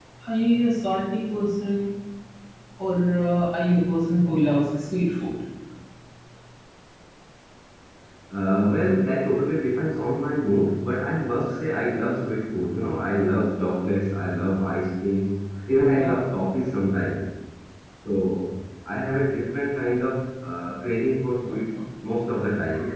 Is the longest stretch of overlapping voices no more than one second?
Yes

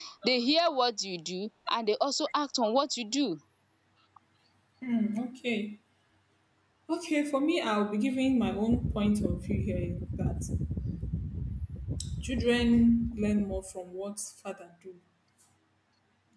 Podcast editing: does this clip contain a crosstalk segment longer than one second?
No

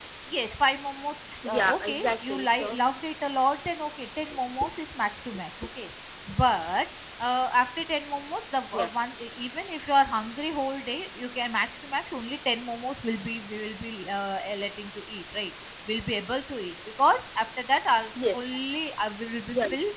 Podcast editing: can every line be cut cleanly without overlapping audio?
No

